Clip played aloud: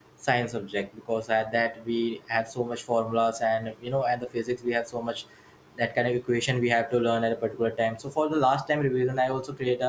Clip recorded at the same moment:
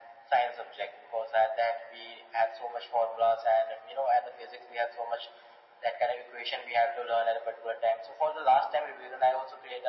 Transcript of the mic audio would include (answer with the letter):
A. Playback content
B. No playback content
A